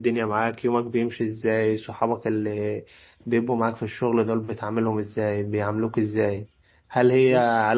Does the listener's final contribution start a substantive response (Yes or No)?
No